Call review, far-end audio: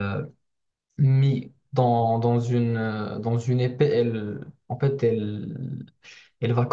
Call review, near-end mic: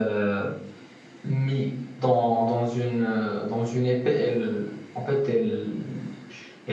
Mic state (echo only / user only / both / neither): echo only